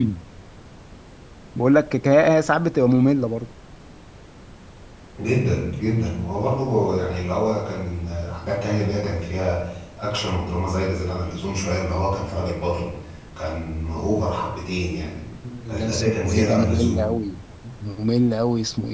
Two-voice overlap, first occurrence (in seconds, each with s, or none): 15.8 s